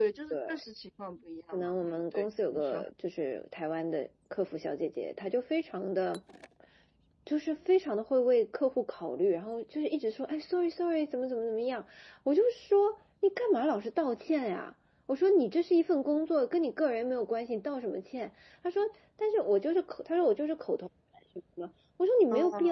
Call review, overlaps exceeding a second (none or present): present